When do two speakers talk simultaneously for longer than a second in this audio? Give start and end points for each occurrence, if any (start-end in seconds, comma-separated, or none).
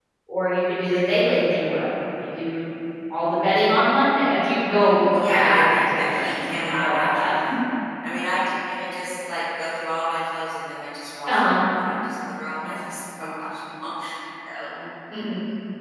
5.1-7.3